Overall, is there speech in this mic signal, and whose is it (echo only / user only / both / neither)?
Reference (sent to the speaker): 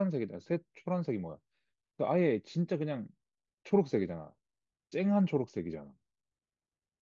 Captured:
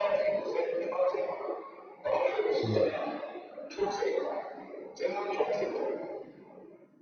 both